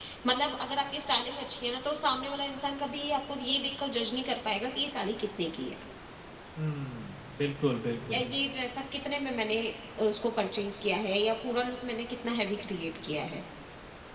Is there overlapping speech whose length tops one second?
No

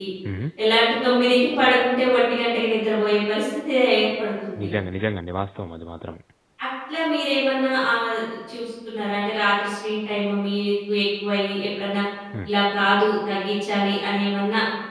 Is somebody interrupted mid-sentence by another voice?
No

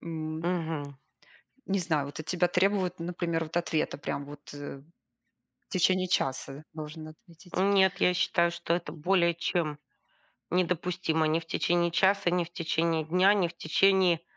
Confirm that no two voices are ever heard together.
Yes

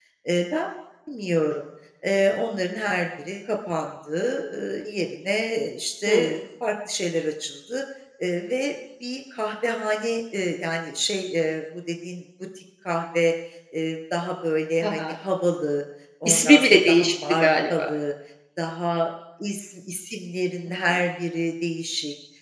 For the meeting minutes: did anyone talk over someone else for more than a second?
Yes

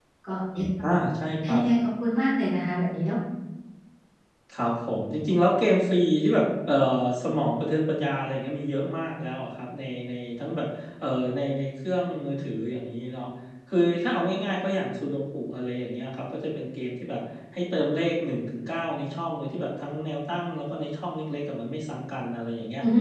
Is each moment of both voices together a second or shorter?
Yes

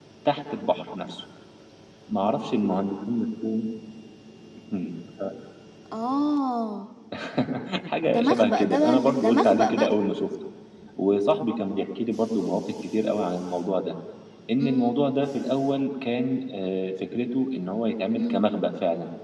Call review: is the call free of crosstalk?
No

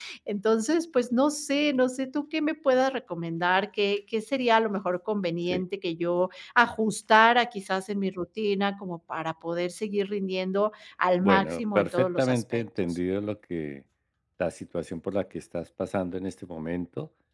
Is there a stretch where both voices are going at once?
Yes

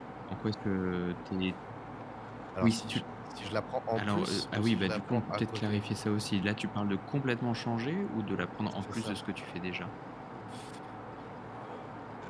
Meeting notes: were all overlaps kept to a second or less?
No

